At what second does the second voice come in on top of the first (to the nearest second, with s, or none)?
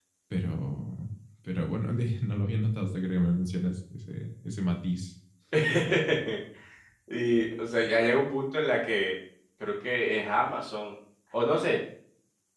none